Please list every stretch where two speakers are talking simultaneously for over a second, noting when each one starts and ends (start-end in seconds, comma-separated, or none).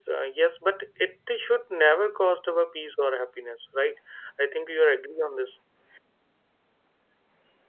none